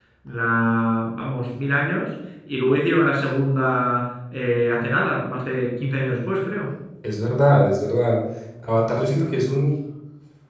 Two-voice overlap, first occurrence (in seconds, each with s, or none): none